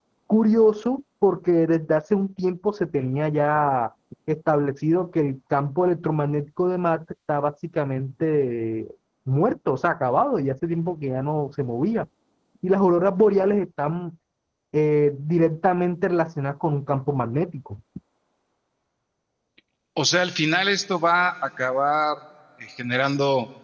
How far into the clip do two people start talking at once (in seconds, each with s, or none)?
none